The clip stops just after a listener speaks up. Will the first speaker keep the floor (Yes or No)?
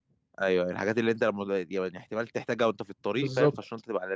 No